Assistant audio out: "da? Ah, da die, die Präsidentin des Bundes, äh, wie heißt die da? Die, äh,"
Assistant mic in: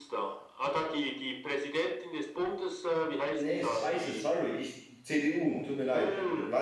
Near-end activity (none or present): present